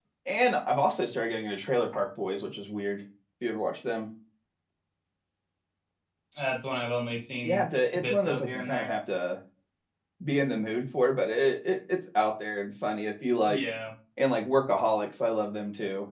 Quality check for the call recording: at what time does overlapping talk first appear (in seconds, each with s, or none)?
7.4 s